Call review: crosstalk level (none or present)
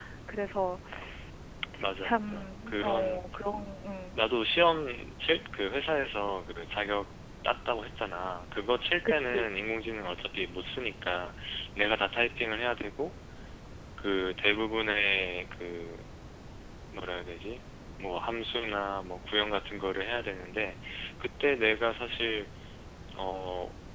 present